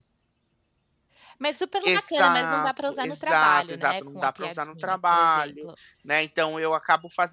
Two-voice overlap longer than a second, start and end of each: 1.9-5.7

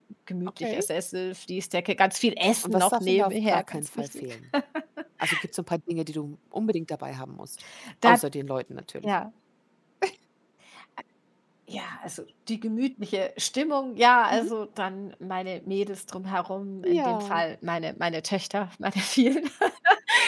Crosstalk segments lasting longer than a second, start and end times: 2.6-4.2

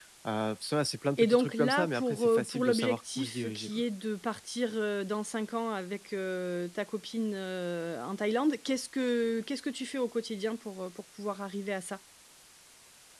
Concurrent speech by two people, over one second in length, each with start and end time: 1.2-3.8

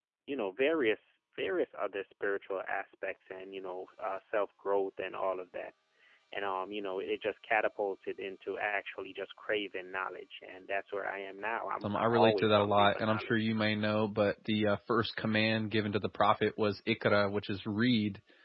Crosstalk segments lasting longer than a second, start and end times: 11.8-13.5

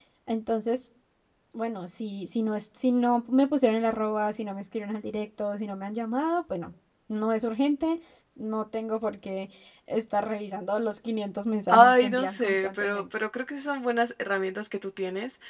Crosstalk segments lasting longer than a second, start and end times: 11.7-13.0

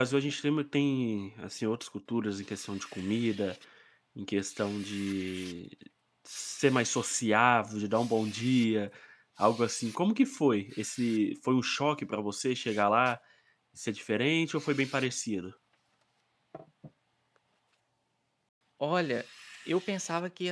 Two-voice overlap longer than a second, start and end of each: none

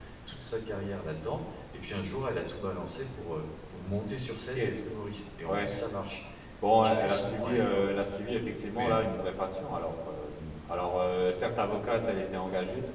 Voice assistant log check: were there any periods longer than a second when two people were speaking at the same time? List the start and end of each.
6.8-8.1

